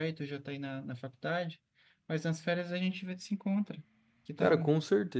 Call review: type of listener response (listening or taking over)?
taking over